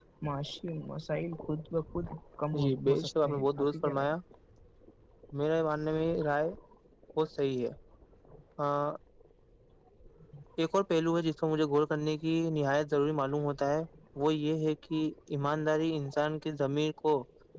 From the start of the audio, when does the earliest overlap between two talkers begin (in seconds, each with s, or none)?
2.5 s